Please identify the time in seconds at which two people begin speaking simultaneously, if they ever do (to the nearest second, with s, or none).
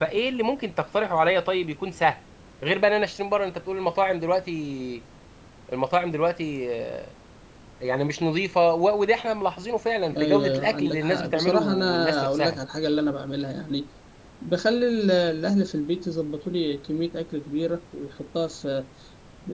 10 s